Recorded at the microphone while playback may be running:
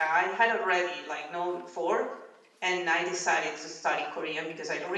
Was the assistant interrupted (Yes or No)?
Yes